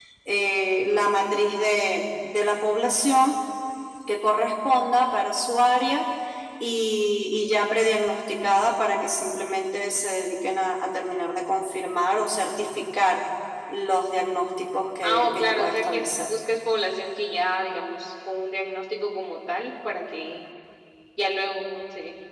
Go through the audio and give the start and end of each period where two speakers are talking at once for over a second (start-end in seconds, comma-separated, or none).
15.0-16.3